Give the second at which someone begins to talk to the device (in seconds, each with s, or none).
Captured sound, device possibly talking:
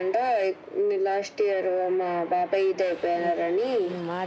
3.2 s